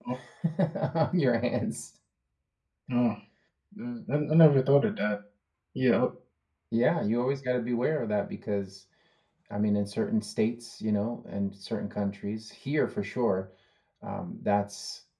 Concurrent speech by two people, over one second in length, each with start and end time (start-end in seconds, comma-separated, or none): none